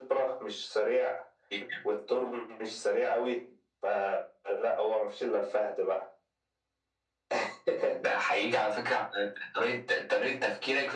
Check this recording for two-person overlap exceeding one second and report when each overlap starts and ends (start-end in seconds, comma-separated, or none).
none